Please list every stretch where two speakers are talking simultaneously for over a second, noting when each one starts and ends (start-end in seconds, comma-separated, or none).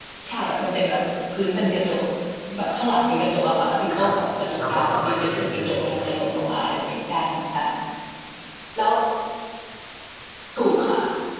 4.6-6.0